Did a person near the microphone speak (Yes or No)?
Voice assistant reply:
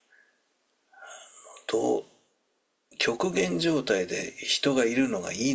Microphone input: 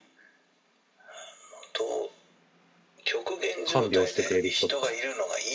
Yes